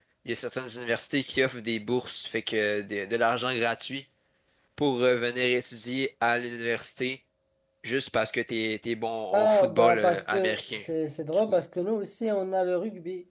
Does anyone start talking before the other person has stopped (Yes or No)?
Yes